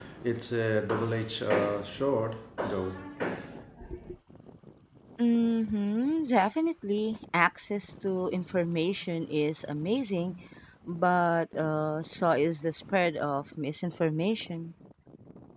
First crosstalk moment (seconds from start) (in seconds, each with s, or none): none